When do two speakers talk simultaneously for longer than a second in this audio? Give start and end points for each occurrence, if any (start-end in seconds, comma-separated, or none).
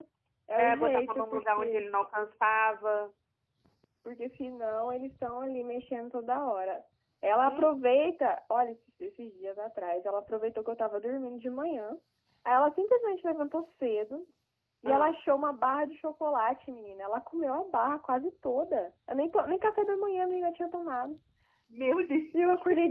0.6-1.8